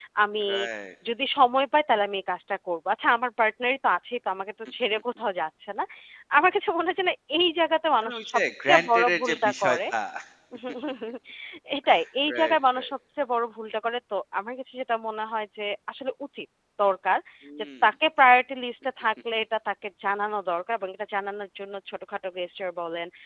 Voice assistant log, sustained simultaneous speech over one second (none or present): present